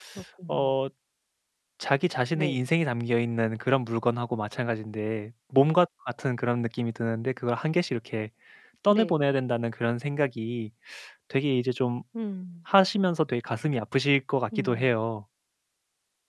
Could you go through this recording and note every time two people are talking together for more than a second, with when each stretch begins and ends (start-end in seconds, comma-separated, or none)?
none